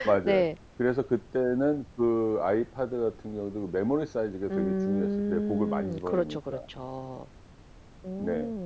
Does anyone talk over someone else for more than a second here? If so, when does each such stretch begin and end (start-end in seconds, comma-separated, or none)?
4.5-6.6